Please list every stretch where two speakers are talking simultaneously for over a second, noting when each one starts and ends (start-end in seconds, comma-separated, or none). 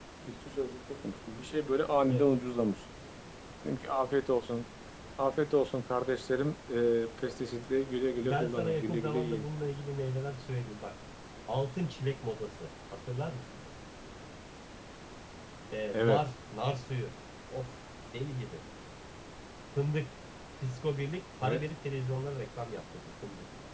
8.2-9.4